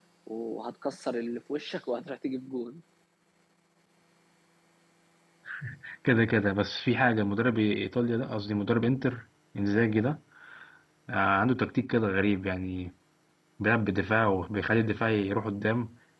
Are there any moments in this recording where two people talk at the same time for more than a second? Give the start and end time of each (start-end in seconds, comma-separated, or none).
none